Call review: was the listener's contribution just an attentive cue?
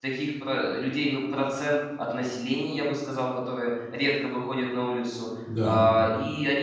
Yes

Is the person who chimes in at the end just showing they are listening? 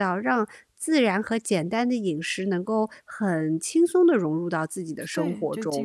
No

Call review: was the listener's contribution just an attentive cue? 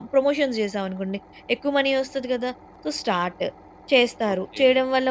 No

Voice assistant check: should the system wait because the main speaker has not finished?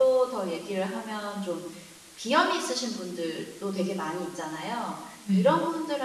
Yes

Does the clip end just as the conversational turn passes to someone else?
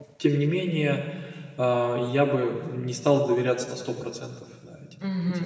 Yes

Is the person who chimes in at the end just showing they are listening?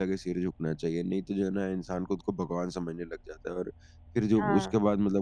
Yes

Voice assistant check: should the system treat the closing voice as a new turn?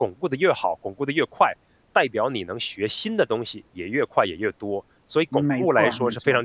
Yes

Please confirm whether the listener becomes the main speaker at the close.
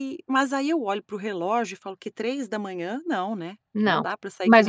Yes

